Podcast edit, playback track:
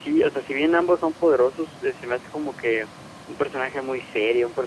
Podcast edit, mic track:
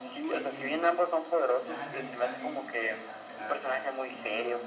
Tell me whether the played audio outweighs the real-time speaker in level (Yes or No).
Yes